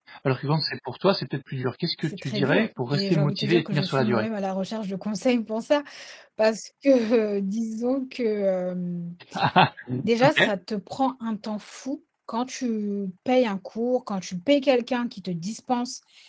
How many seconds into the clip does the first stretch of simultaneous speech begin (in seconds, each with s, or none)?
2.0 s